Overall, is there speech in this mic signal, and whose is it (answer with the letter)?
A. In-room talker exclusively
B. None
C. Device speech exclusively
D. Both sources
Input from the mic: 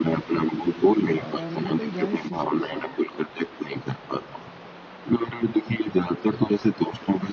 D